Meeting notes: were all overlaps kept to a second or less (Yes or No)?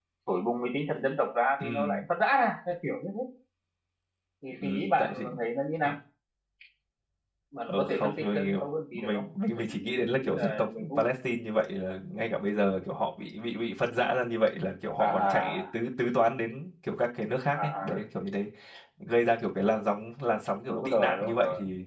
No